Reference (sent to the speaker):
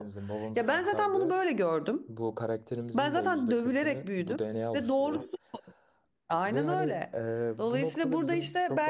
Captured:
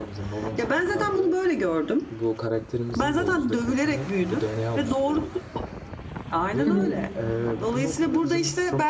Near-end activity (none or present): present